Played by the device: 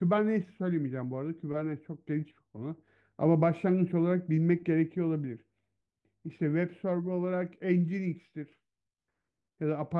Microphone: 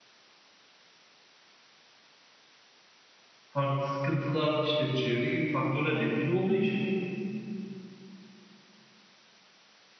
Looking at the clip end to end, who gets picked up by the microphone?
user only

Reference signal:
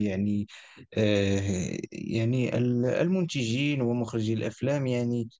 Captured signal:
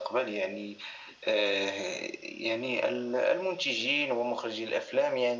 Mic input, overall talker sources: echo only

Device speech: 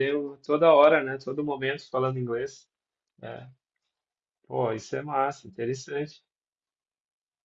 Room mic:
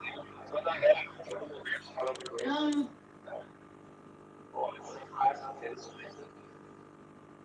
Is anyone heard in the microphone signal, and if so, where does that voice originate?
both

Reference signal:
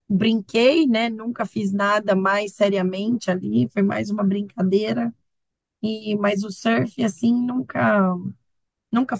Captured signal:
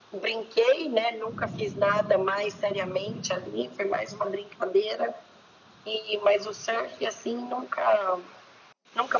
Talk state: echo only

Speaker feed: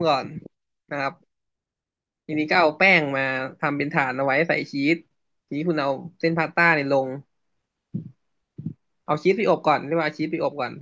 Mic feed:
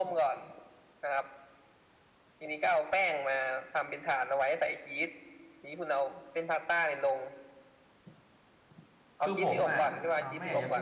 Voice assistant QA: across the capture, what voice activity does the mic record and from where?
both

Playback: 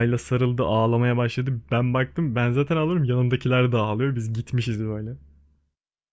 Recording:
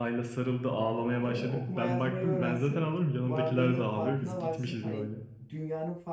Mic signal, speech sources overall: both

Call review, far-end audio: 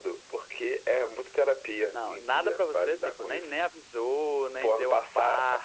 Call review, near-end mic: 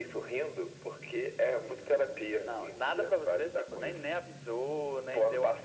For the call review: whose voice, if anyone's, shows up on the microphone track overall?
echo only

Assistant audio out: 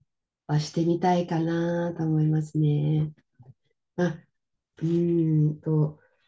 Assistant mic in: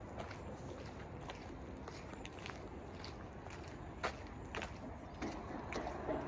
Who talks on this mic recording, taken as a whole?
neither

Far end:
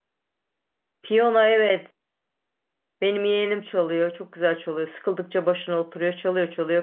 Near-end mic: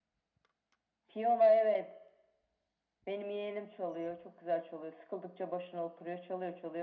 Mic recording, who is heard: echo only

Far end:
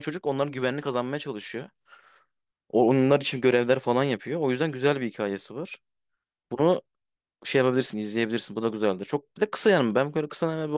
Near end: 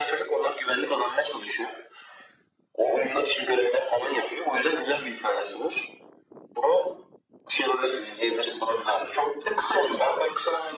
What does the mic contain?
echo only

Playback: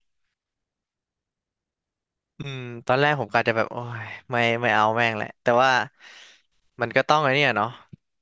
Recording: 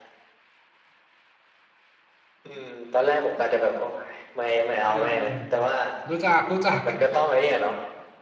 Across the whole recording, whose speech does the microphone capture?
both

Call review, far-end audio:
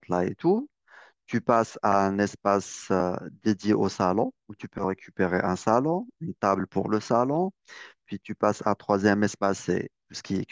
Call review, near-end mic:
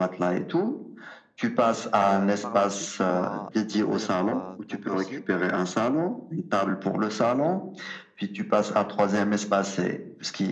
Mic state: both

